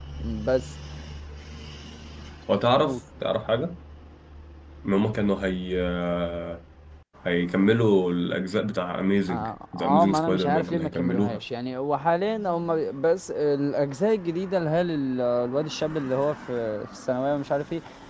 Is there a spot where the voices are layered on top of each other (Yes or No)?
Yes